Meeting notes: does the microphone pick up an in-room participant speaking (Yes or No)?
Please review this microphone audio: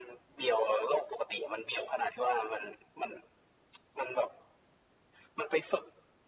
No